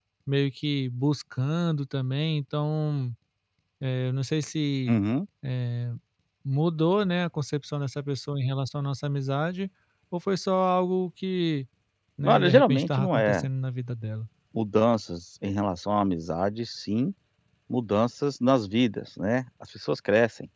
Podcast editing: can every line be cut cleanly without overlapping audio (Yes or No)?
No